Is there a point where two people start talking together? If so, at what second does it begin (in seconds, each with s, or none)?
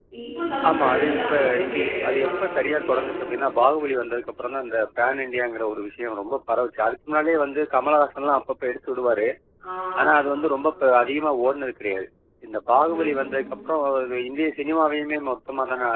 0.7 s